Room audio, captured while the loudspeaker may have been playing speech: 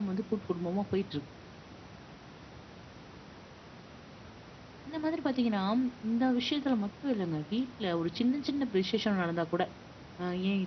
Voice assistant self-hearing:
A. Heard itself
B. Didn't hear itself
B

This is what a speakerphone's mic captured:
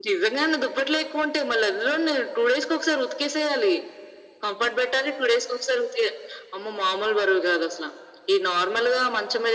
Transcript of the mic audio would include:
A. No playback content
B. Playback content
B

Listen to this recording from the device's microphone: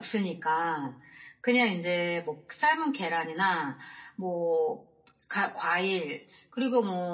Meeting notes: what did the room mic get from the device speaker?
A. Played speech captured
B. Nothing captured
A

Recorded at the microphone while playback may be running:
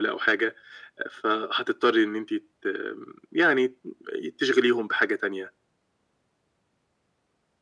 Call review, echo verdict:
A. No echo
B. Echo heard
B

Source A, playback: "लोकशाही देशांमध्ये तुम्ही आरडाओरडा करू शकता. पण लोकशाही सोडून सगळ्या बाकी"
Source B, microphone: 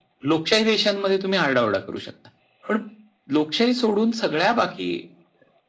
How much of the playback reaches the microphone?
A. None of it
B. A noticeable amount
B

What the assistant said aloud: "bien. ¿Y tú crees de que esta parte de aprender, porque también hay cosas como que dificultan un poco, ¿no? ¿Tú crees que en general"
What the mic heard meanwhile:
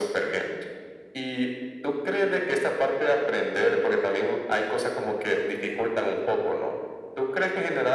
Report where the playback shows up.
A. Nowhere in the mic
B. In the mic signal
B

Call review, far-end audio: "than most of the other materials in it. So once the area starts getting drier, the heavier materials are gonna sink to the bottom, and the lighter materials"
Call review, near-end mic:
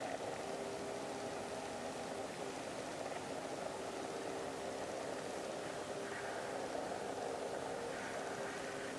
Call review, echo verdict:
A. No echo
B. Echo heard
A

